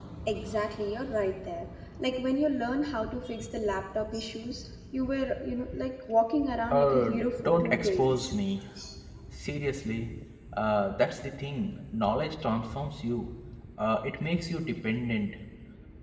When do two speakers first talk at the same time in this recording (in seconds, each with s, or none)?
6.7 s